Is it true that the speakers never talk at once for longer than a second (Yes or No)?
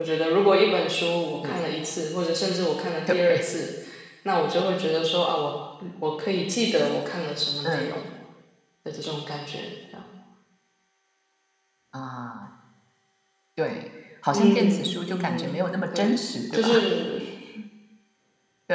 No